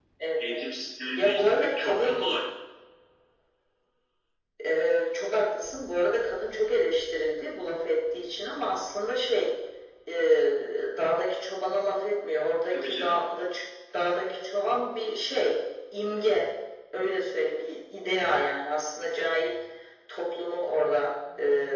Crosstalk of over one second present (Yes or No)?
Yes